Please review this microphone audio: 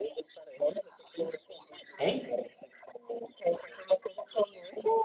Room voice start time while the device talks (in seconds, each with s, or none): 2.0 s